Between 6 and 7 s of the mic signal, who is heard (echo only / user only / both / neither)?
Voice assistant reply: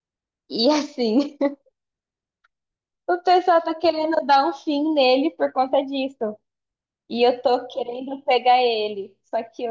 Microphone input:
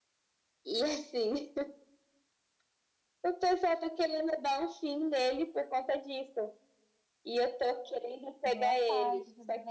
echo only